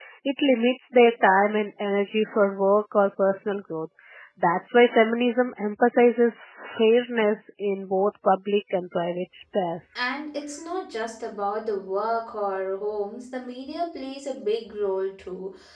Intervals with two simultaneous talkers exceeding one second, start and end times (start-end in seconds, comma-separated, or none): none